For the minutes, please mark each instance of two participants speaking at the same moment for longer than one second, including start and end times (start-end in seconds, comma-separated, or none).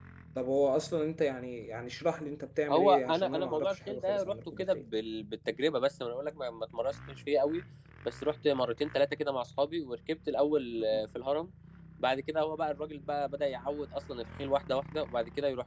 2.7-4.8